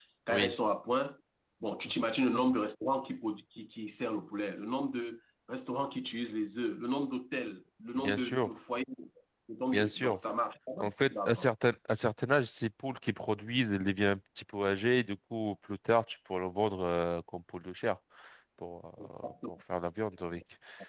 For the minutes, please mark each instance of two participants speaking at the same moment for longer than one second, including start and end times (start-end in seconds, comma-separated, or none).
none